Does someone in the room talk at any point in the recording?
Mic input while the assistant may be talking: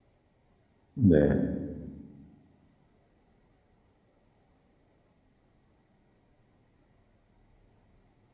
Yes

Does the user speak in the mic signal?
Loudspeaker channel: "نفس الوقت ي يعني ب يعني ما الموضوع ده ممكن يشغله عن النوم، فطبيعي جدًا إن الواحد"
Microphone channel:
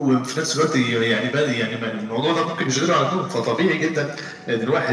No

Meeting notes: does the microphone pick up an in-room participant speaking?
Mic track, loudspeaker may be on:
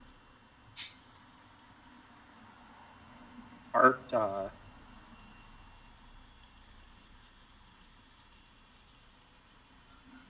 Yes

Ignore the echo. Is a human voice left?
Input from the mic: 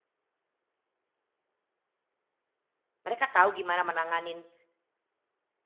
Yes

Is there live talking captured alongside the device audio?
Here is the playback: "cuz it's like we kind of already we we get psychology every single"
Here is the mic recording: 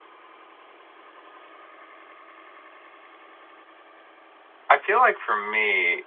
Yes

